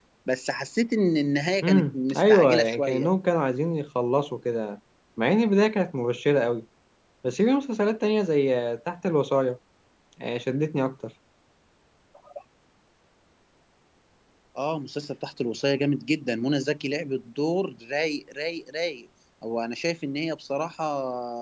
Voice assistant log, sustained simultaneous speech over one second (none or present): present